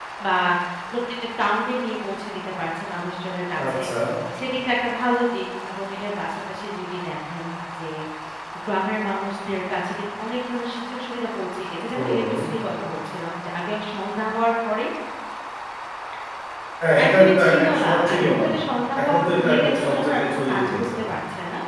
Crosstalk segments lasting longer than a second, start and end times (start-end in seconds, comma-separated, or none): 17.0-18.4, 19.0-20.8